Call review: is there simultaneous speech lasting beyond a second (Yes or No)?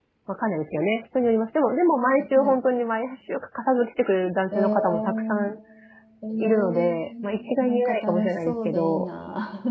Yes